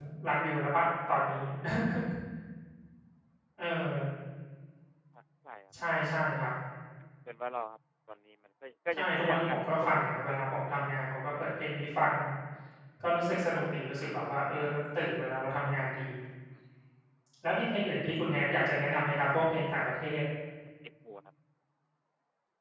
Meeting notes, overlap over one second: present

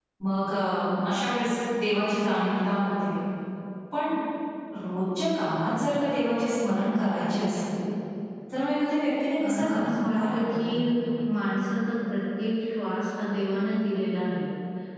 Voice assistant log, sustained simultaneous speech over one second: present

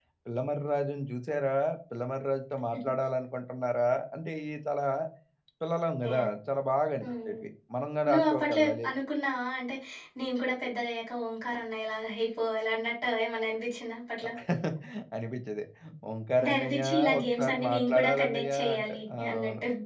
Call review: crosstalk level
present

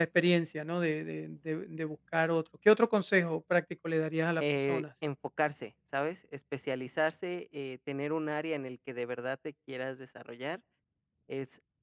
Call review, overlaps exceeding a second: none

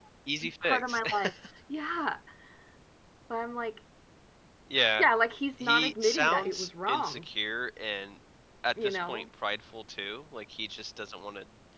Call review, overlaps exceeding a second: present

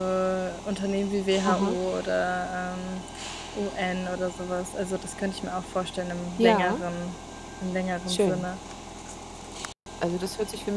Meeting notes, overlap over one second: none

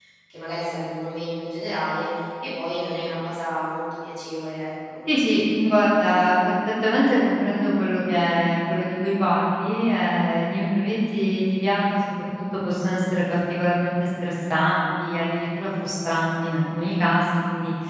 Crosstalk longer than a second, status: none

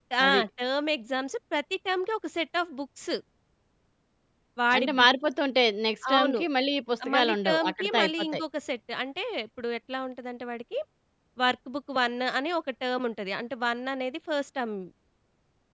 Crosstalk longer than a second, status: present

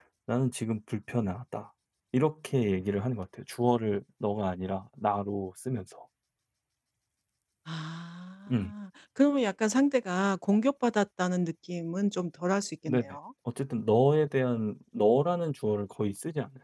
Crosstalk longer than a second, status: none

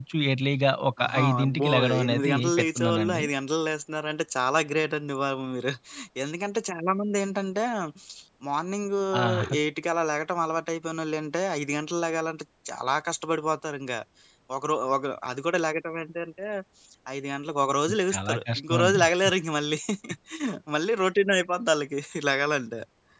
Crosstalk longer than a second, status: present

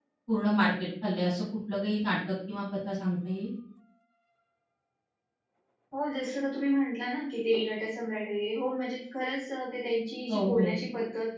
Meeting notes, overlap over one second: none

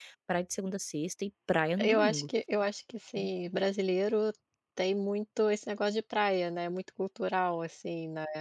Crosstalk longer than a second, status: none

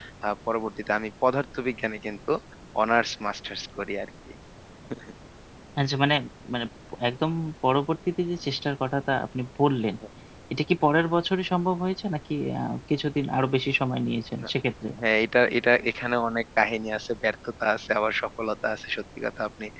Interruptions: none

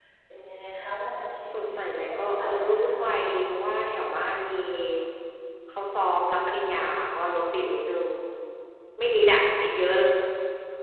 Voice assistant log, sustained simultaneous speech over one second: present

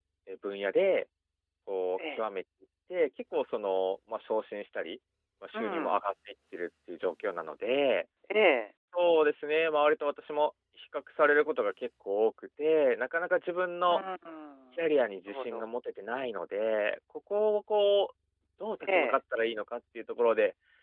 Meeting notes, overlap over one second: none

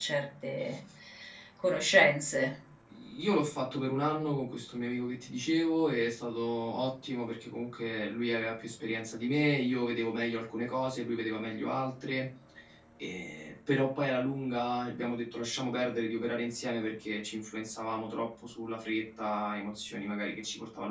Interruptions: none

